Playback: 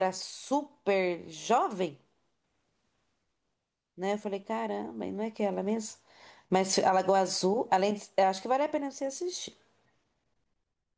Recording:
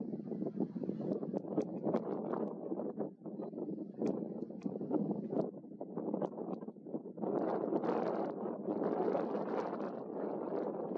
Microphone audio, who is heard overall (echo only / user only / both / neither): neither